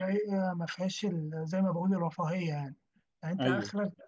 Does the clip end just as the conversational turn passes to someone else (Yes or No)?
No